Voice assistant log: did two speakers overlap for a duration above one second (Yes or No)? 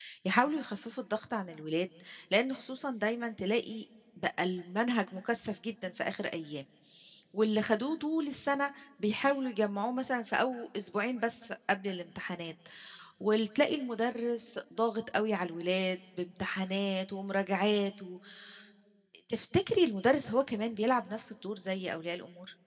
No